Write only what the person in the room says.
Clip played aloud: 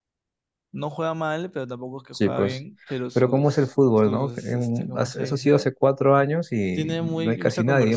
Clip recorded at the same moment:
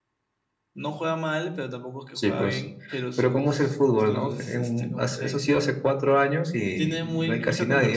none

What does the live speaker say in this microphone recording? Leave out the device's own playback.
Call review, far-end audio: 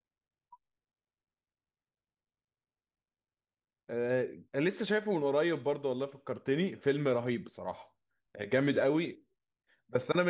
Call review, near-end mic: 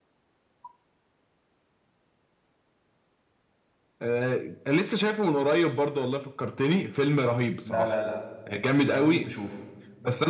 لا لا لا لازم تشوفه

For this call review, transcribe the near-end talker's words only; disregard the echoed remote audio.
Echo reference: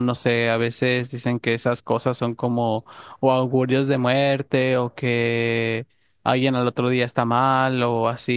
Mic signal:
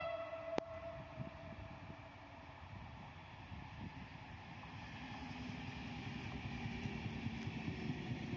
none

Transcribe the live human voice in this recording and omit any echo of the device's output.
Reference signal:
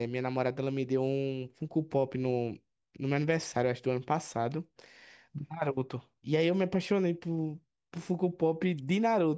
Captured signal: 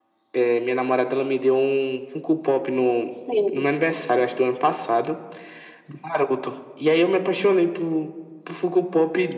sim.

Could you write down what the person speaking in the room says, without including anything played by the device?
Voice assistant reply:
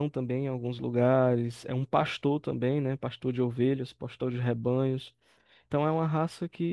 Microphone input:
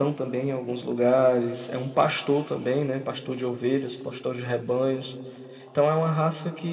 none

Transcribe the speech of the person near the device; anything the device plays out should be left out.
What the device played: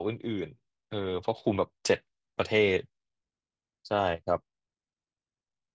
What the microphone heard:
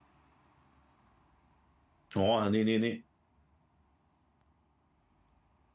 อ๋อนี่นี่นี่

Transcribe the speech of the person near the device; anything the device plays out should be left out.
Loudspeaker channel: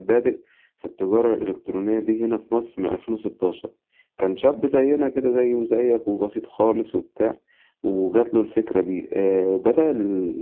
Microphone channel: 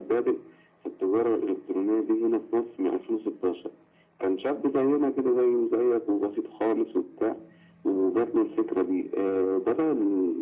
none

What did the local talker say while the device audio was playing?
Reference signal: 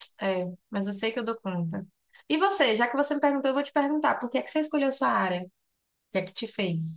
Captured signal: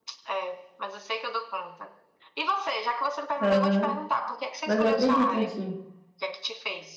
Aham. Mas eu acredito em ti.

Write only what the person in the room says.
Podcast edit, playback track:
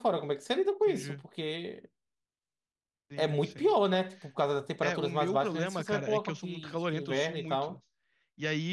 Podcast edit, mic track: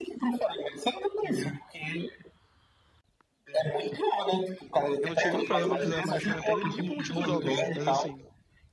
Eu não tinha nenhum problema de usar máscara na pandemia por motivos óbvios, mas assim,

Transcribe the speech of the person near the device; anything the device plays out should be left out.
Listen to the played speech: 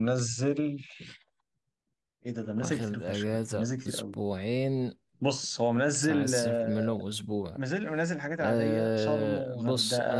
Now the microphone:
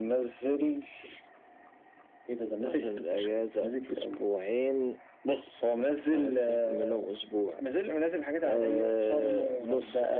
none

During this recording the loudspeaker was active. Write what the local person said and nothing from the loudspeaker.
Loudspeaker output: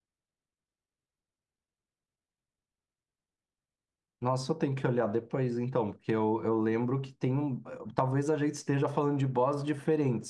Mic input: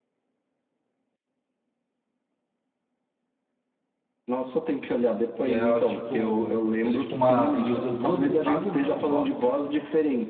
e é tipo, ele é tipo uma, ele usa duas espadas, né, o boss.

